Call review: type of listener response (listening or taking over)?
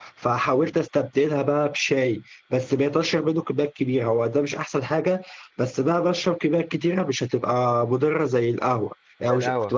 listening